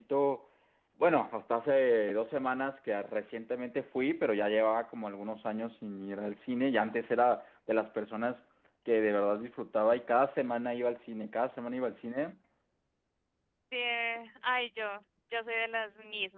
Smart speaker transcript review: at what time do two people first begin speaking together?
none

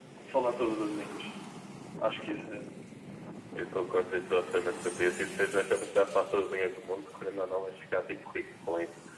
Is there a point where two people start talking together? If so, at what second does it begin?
none

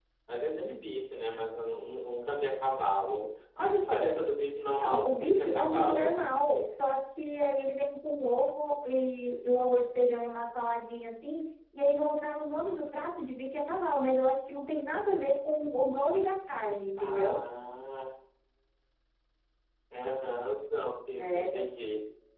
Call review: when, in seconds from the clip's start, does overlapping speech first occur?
5 s

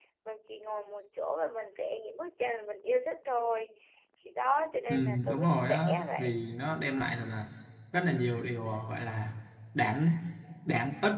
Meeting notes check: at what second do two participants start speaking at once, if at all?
5 s

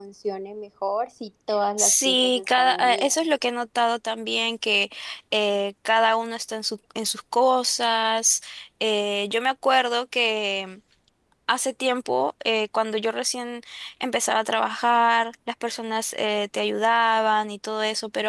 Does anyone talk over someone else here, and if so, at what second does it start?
2 s

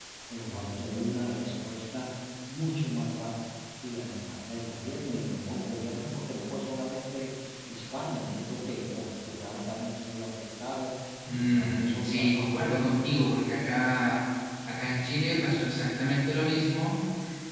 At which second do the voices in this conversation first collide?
11 s

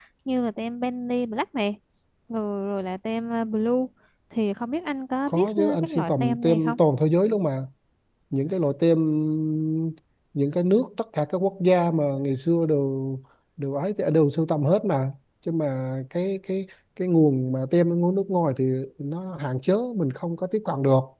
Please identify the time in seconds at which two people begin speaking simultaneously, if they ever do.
5 s

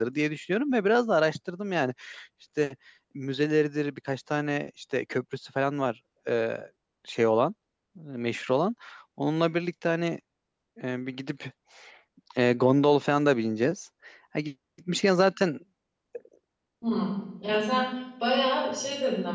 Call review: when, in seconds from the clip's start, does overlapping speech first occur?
none

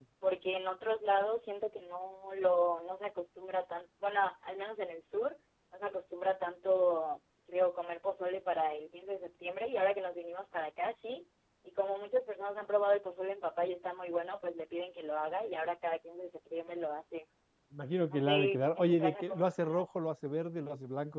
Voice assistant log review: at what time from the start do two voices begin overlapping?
18 s

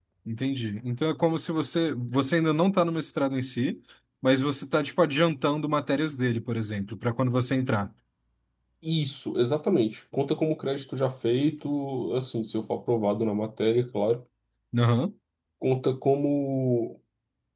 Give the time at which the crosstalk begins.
none

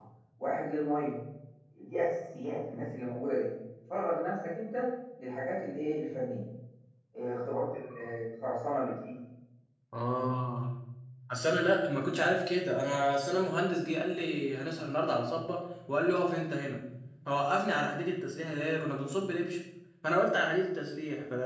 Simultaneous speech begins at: none

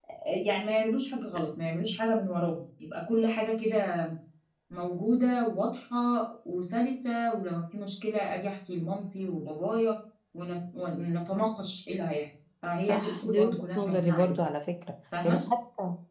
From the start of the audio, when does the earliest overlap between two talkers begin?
13 s

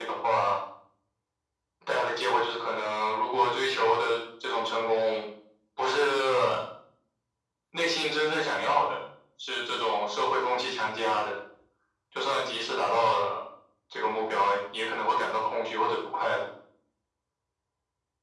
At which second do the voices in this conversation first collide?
none

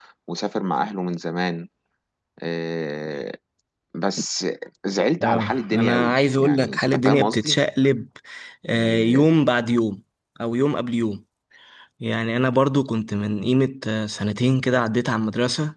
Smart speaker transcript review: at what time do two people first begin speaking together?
5 s

